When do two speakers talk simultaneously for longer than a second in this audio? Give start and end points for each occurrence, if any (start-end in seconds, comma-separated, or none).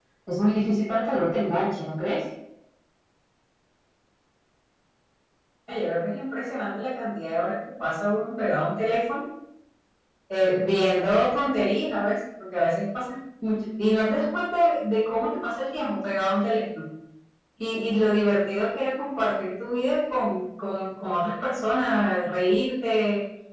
none